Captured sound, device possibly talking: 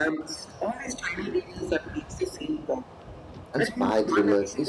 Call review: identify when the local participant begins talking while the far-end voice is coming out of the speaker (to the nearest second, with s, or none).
4 s